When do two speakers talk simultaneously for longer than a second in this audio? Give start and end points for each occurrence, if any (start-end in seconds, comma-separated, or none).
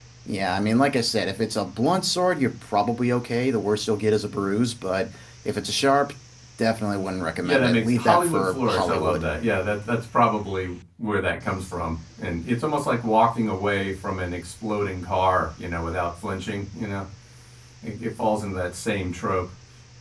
7.4-9.2